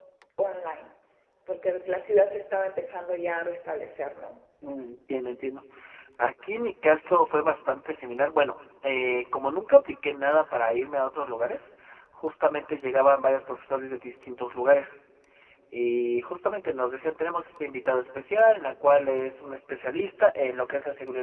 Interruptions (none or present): none